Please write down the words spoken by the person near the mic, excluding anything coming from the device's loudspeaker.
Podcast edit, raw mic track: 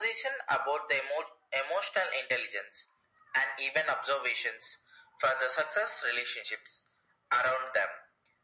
none

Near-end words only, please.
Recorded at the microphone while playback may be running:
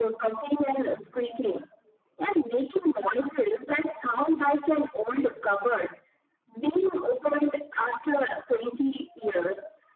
none

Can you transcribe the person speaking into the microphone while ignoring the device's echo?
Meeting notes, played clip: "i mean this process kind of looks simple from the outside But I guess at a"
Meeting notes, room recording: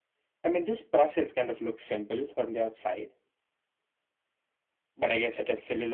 none

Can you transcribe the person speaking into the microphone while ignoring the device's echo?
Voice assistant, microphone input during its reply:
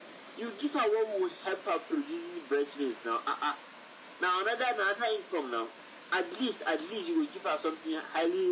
none

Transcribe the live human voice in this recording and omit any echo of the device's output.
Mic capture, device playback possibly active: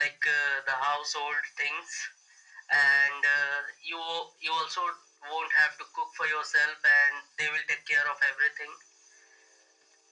none

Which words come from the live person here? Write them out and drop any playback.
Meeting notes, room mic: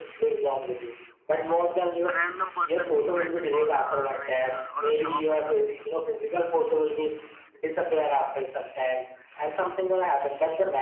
a random person we met on a like uh, on a shop or something

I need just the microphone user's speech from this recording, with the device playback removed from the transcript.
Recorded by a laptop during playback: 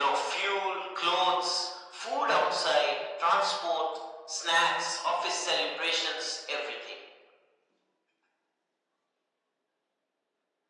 none

